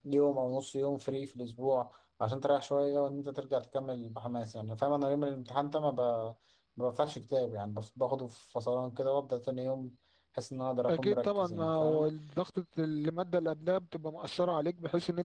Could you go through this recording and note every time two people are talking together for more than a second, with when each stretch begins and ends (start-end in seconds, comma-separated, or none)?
10.9-12.1